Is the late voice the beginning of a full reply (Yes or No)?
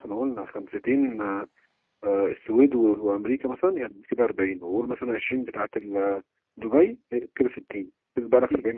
Yes